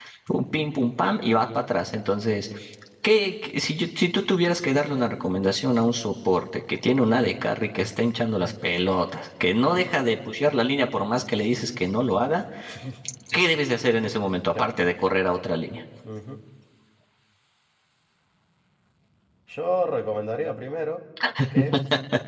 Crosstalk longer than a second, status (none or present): none